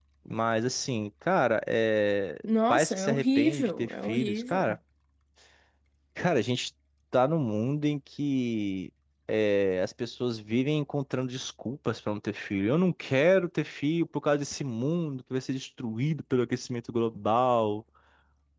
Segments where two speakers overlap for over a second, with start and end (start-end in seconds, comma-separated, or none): 2.4-4.8